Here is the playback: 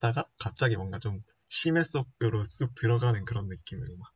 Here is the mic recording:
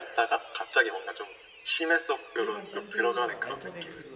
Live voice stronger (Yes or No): No